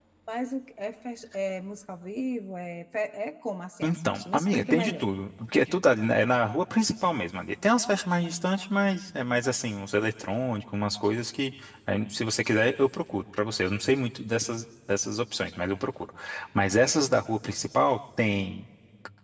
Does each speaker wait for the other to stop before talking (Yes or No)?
No